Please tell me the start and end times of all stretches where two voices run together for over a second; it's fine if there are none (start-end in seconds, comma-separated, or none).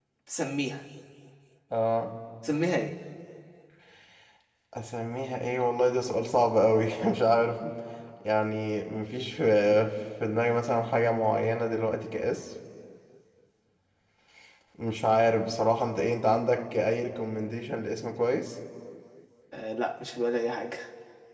none